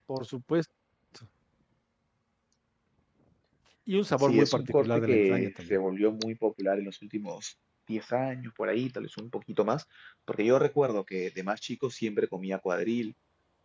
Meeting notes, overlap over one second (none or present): present